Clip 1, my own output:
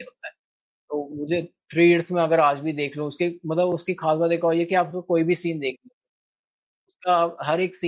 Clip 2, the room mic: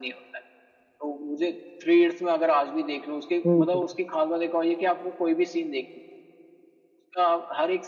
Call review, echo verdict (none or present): present